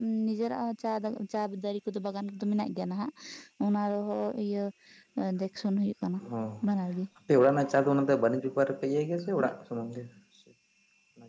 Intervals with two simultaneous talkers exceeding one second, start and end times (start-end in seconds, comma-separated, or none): none